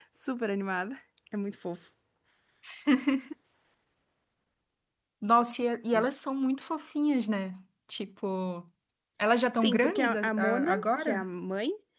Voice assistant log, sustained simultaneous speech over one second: present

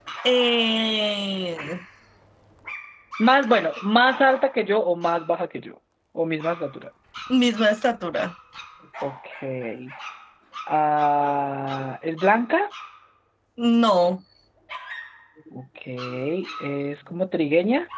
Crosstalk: none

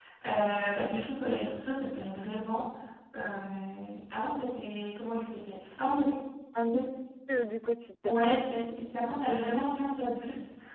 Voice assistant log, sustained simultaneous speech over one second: none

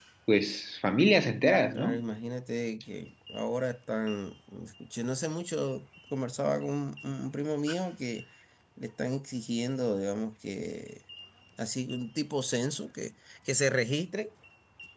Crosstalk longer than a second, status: none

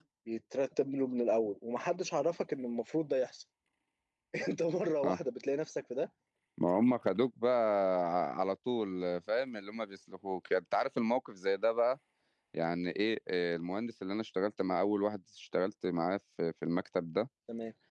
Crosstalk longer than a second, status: none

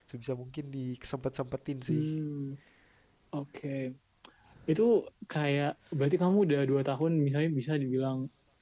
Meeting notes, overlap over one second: none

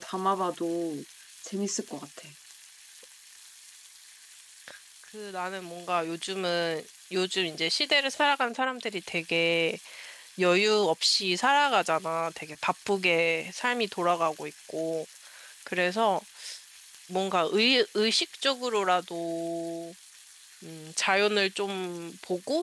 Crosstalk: none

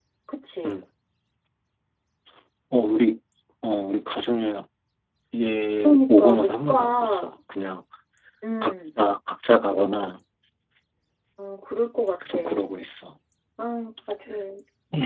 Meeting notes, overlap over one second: present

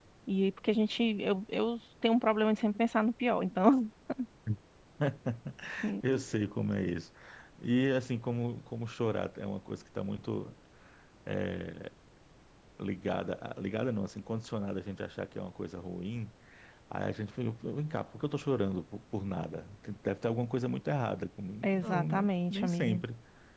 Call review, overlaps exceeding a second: present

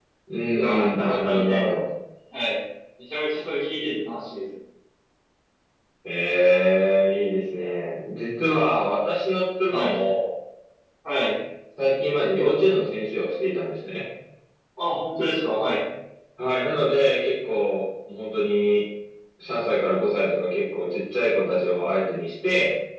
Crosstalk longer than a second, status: present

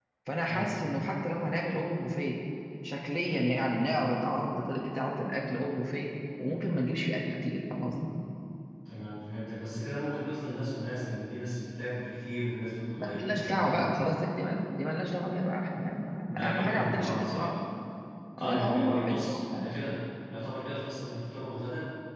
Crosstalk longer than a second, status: present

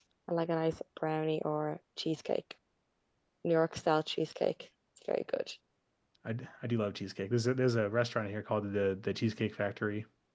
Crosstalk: none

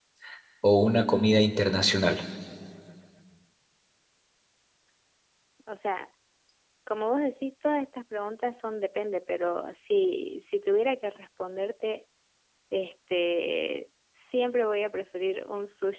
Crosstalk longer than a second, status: none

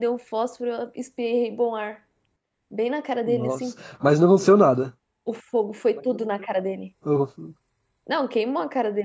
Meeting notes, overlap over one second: none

